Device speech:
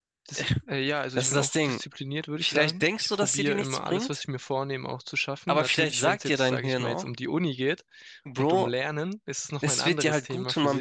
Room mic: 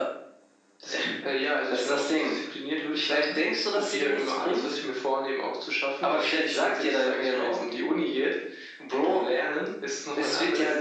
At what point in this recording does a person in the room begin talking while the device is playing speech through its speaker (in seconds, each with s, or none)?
none